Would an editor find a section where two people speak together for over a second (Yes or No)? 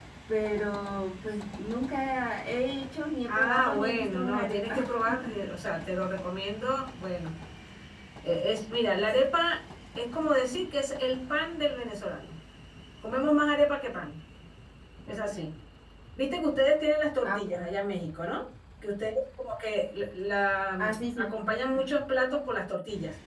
Yes